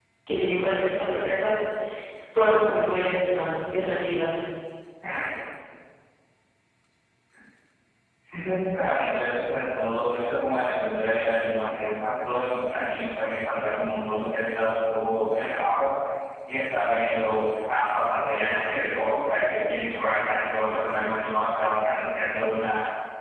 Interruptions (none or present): none